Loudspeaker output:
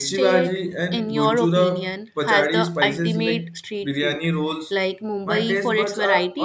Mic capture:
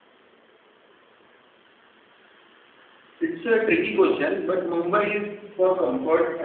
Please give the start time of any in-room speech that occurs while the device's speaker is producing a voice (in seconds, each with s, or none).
3.2 s